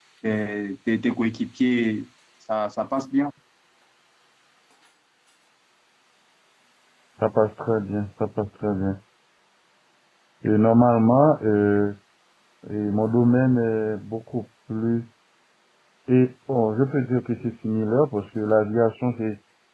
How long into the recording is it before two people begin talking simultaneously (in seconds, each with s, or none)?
none